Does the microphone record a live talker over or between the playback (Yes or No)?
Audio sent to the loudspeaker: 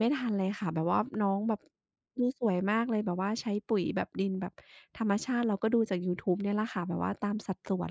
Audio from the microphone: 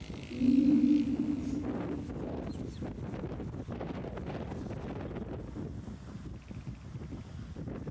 Yes